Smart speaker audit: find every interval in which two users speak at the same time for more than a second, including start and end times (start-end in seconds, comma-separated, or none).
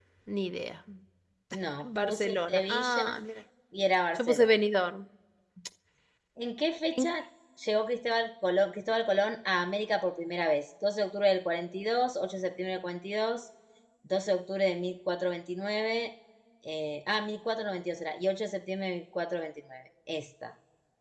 1.8-3.1